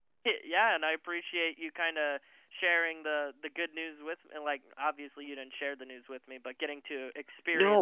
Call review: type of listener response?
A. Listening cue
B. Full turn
B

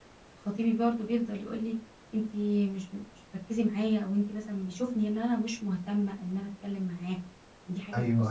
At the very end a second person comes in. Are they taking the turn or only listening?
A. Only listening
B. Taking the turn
B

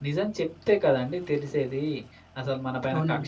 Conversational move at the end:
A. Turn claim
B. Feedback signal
B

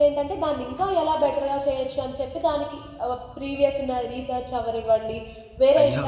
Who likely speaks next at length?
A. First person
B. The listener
A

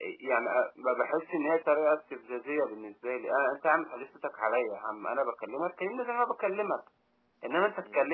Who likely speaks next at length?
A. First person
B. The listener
A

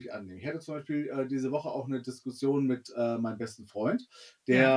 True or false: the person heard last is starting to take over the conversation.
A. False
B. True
A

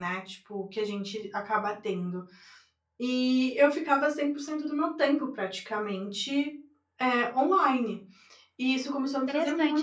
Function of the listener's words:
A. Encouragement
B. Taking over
B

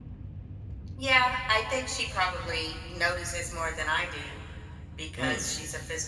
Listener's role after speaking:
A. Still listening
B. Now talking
A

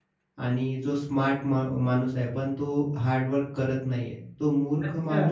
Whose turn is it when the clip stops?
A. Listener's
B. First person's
B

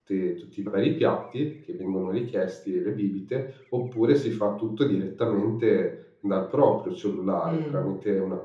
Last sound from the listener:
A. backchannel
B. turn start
A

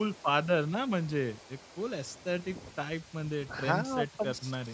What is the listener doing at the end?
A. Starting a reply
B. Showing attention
A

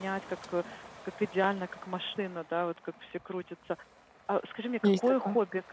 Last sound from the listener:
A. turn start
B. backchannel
B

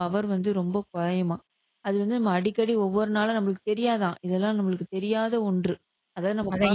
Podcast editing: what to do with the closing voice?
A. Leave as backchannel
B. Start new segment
B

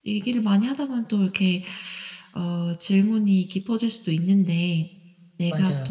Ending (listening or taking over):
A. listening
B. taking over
A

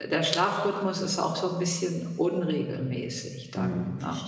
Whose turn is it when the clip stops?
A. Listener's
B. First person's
A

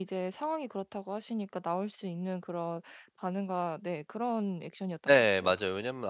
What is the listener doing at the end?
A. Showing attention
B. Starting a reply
B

